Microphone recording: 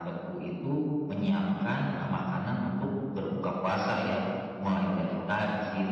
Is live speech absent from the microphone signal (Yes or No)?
No